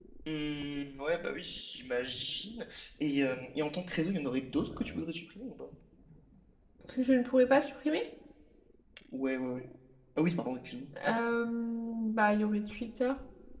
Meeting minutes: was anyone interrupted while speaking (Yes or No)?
No